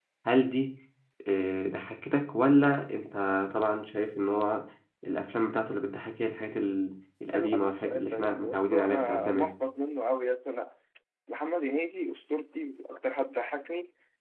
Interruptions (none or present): present